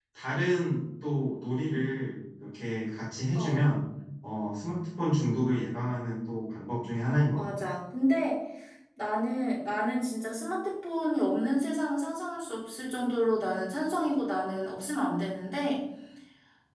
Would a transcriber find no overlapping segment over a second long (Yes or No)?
Yes